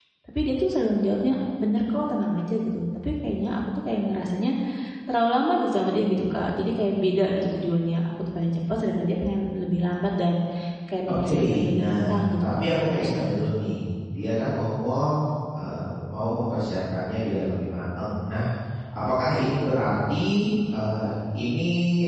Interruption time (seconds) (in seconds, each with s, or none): 11.1 s